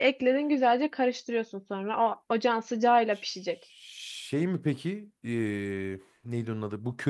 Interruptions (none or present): none